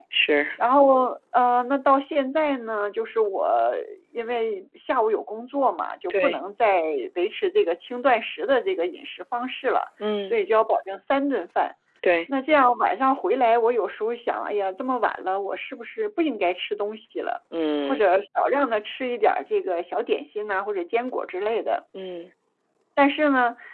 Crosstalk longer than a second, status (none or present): none